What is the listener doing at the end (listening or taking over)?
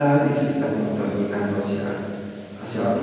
listening